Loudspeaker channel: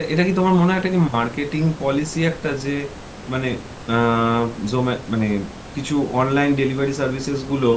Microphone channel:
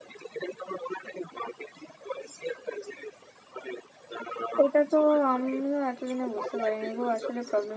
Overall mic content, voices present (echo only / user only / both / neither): both